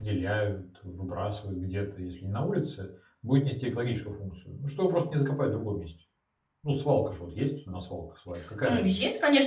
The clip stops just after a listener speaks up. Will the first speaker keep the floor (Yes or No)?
No